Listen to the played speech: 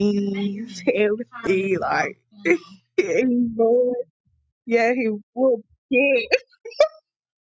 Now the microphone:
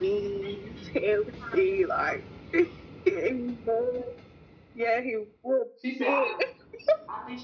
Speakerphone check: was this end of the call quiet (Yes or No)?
No